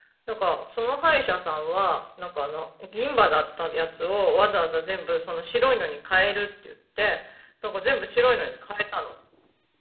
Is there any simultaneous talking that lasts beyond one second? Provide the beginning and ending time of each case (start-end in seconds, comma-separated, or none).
none